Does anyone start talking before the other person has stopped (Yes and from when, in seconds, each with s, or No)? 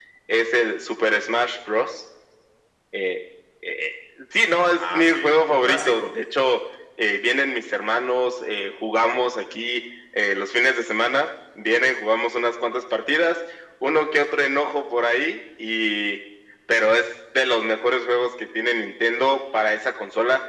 Yes, from 4.8 s